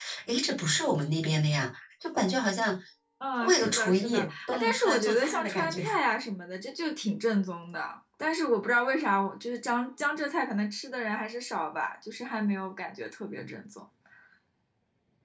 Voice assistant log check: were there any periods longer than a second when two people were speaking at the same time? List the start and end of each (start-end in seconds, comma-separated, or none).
3.4-5.8